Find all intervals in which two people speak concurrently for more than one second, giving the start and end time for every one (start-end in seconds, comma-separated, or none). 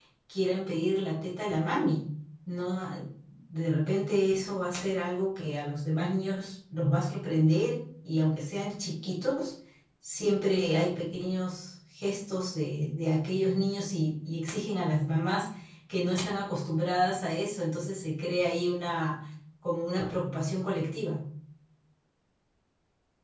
none